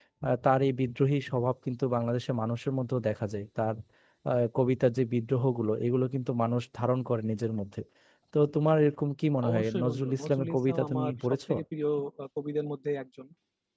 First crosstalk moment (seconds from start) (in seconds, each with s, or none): 9.4 s